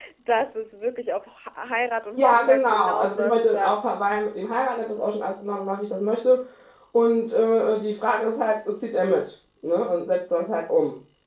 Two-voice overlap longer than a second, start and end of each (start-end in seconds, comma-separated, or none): 2.2-3.8